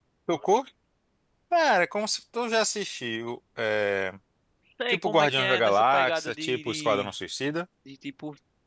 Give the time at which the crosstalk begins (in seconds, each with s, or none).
4.9 s